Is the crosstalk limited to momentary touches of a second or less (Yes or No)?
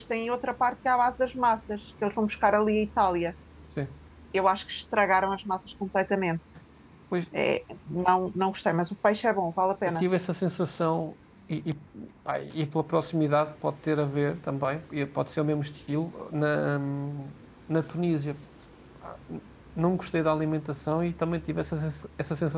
Yes